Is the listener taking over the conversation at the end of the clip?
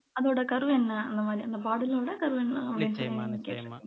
Yes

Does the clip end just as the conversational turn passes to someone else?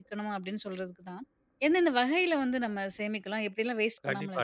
Yes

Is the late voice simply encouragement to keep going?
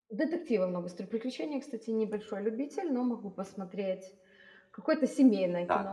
No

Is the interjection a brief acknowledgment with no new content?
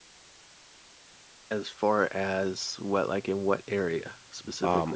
No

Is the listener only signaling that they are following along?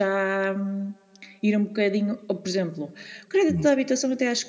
Yes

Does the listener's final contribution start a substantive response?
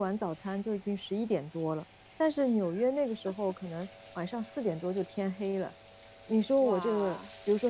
No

